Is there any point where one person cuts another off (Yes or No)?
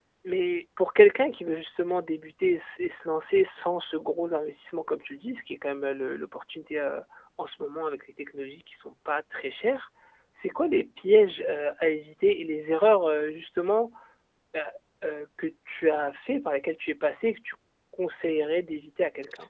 No